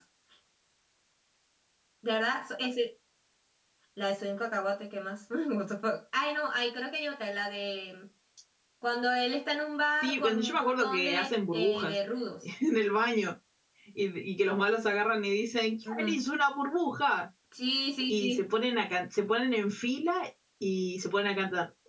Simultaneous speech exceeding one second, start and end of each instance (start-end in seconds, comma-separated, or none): 10.0-11.9